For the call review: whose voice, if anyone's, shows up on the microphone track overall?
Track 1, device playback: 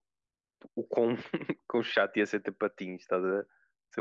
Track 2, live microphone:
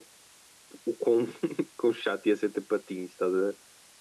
echo only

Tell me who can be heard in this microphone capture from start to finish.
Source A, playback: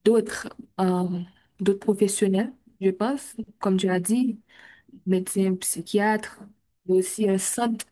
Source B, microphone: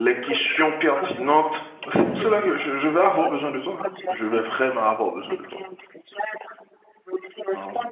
both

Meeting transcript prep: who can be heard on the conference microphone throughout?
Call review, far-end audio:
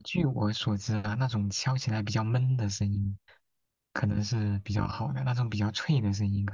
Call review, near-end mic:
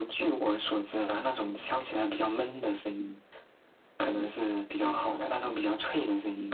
echo only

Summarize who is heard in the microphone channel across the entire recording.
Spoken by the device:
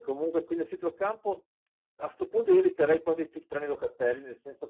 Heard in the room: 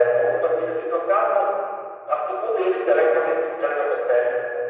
echo only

